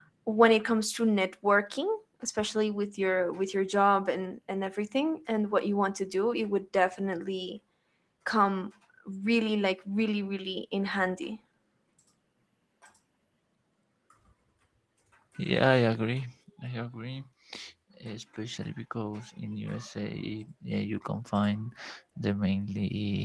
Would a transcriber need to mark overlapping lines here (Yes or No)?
No